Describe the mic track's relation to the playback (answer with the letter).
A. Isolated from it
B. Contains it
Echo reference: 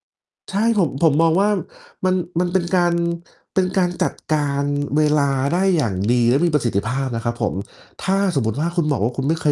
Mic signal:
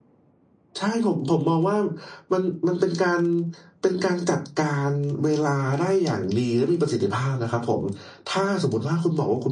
B